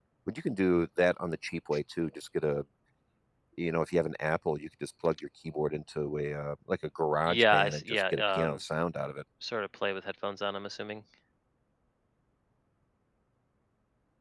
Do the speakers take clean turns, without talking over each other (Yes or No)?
No